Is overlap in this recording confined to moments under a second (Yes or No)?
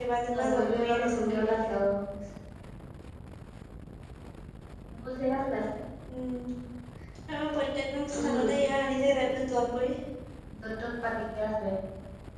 No